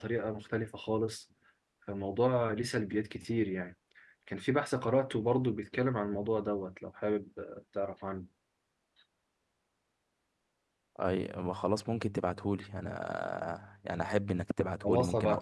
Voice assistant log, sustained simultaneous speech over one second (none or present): none